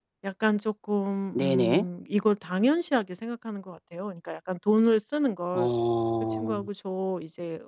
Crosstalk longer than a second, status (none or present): none